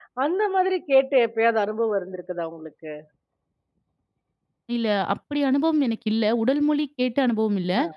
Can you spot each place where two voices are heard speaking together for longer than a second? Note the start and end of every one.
none

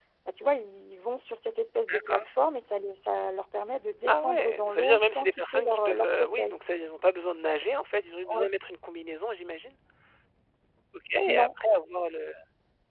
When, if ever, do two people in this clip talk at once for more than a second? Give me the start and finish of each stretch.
4.1-6.5

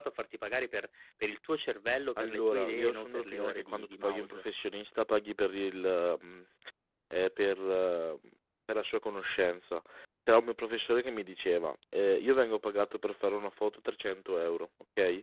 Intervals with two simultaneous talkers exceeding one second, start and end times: 2.2-4.5

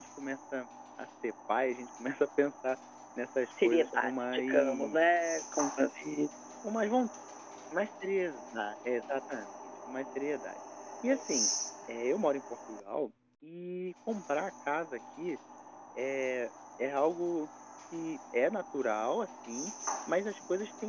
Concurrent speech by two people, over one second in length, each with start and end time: 3.6-5.0

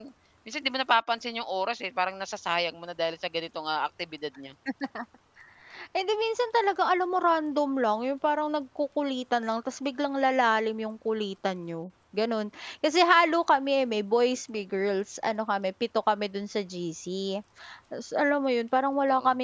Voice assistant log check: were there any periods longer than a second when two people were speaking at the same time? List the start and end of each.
none

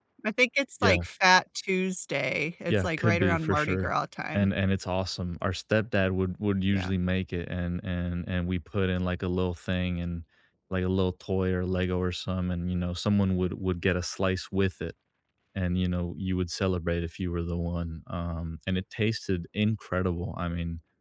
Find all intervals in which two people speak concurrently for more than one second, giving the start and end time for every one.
2.7-3.9

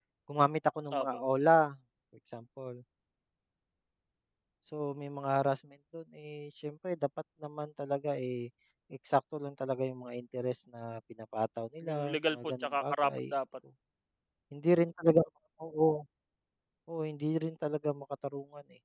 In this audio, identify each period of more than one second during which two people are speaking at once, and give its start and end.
11.9-13.3

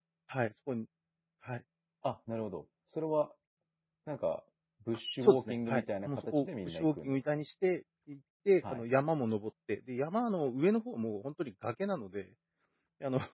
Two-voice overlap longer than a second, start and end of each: 5.2-7.2

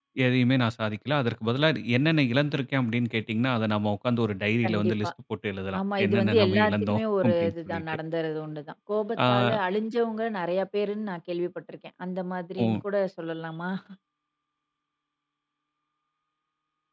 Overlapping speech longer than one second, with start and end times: 5.8-7.8

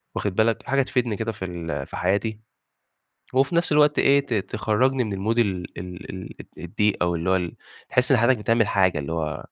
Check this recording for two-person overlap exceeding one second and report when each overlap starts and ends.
none

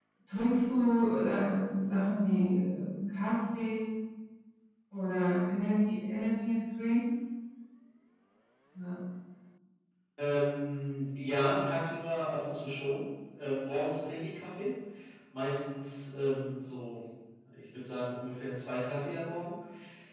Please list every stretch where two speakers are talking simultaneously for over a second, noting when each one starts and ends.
none

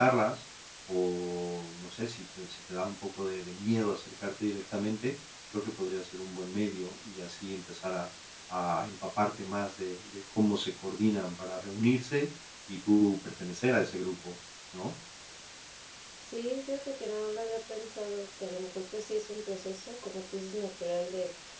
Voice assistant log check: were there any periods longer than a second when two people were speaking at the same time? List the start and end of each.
none

